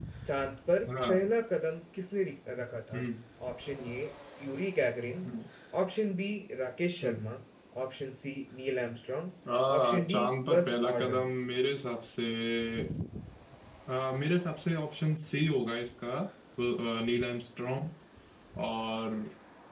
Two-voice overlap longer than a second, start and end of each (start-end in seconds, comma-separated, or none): 9.8-11.3